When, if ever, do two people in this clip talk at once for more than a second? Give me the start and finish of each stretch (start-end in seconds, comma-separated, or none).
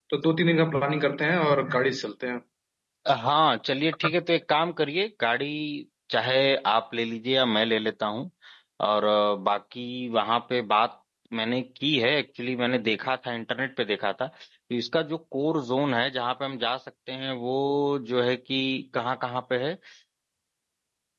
none